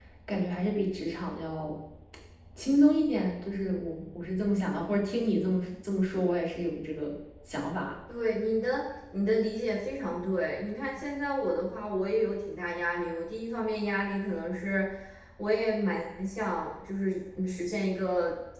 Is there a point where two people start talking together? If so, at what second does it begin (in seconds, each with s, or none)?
none